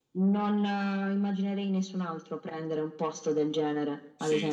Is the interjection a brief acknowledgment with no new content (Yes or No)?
No